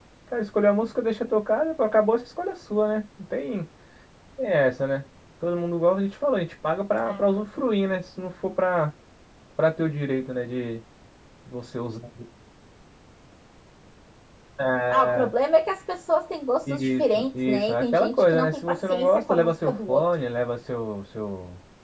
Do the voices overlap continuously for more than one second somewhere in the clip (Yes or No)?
Yes